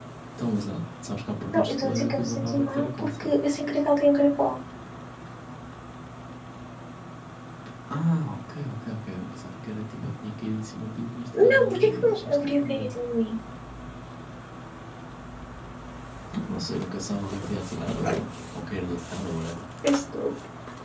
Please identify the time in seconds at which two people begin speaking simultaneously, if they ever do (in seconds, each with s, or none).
1.5 s